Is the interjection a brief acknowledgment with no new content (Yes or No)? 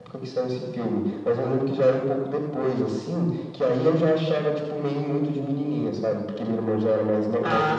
Yes